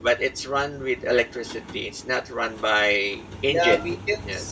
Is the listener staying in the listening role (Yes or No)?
No